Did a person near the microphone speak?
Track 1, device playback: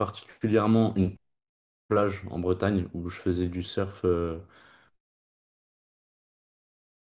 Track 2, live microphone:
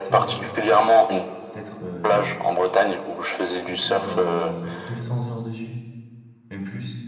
Yes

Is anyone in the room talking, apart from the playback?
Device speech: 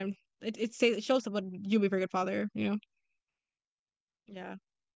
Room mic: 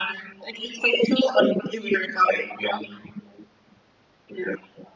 No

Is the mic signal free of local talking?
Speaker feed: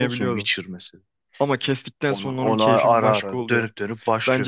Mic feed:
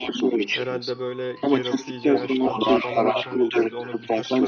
No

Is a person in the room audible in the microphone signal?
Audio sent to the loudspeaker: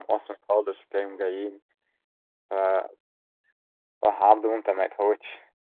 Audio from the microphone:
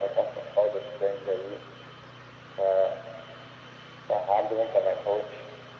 No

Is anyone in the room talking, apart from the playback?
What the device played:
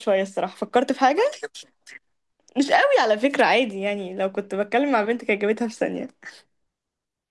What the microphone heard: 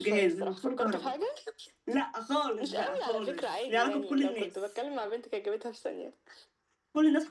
Yes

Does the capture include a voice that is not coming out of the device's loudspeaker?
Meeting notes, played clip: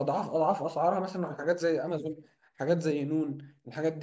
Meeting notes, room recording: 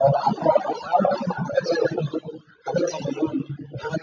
No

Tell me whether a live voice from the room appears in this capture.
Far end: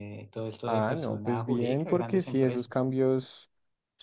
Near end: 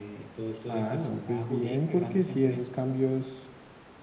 No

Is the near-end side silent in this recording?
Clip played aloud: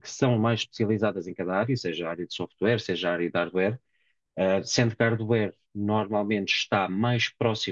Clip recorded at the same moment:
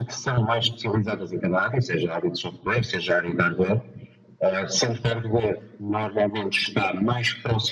Yes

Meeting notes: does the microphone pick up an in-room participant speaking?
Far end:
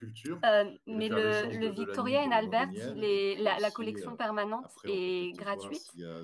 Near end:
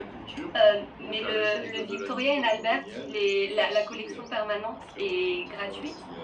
No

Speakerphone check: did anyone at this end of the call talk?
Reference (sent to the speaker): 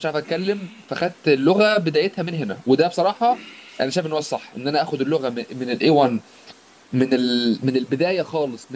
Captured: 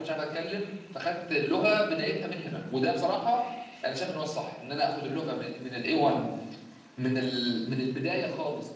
No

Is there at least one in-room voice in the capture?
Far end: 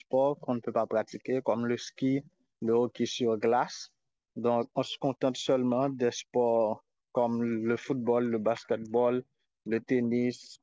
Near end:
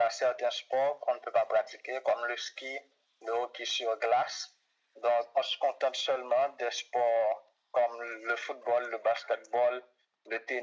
No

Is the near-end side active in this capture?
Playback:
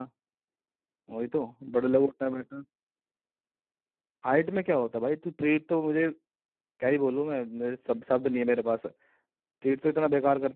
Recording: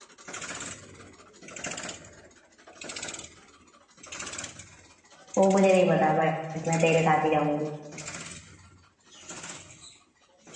Yes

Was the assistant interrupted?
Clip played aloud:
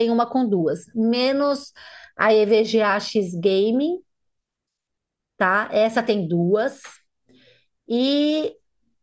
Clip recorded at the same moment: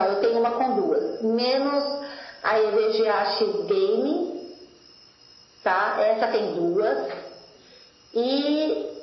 No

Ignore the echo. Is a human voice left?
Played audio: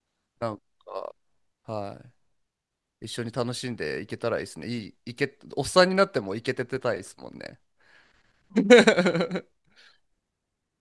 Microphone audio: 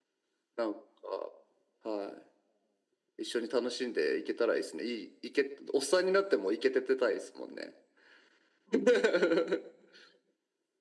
No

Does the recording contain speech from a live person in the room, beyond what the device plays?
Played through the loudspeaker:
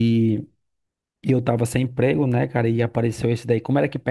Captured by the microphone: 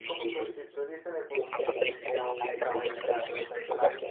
Yes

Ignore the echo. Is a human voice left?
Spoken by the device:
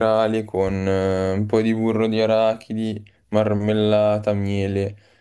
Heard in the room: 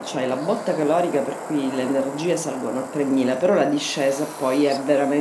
Yes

